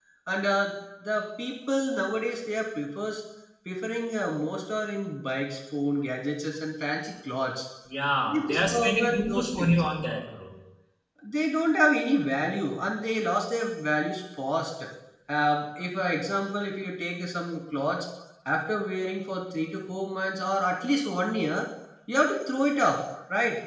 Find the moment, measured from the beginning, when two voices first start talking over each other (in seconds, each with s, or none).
8.3 s